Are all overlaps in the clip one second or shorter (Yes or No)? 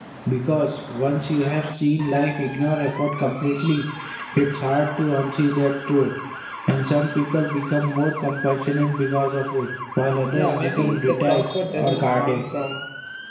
No